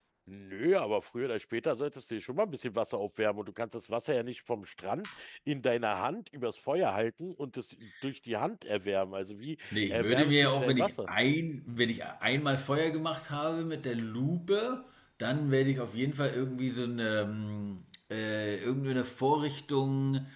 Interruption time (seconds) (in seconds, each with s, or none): 9.7 s